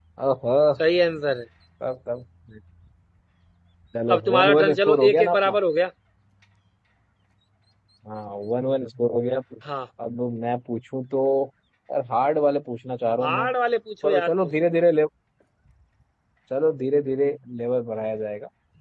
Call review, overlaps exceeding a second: present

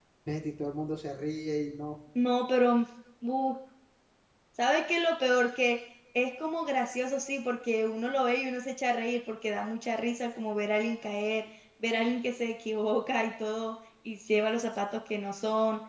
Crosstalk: none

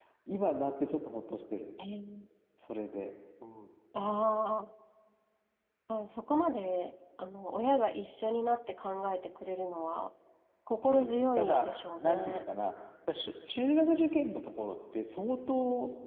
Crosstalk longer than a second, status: present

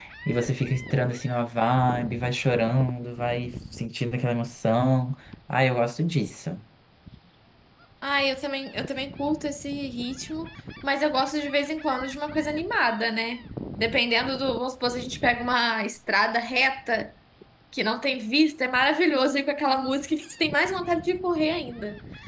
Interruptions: none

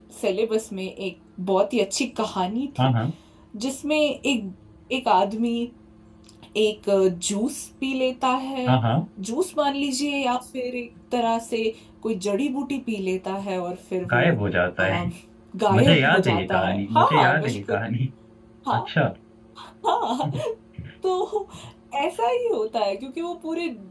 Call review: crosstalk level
present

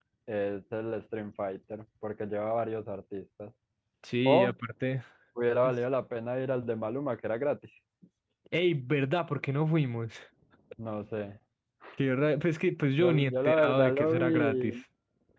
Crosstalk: present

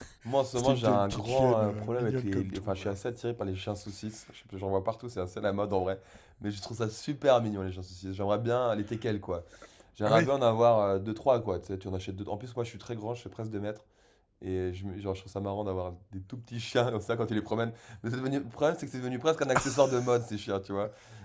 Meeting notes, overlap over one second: present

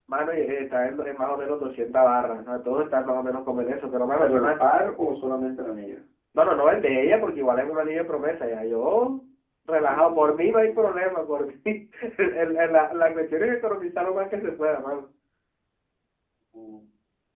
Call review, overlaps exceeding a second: present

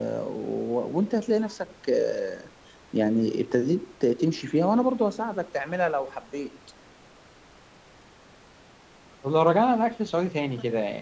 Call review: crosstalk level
none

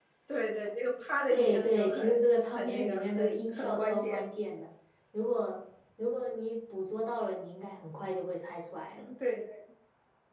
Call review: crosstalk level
present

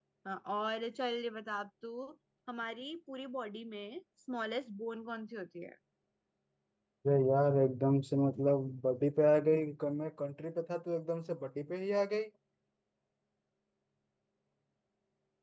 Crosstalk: none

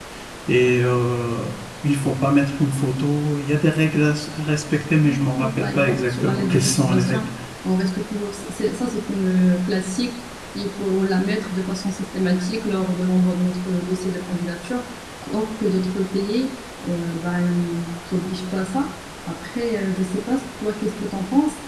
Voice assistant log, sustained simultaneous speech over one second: present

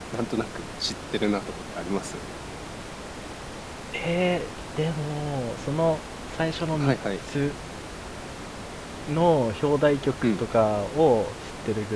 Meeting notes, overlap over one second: none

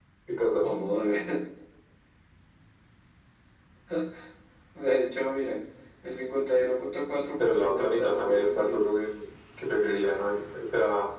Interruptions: present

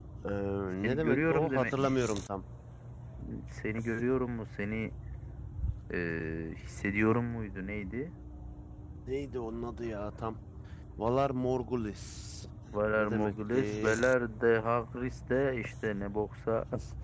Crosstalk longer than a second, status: present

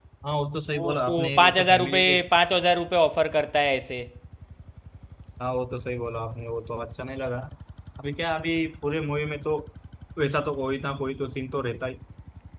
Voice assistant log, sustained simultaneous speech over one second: present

